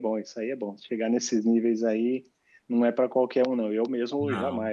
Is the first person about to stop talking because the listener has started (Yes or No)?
No